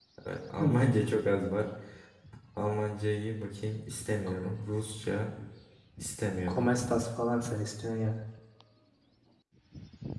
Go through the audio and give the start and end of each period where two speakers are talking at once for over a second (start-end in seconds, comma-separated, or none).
none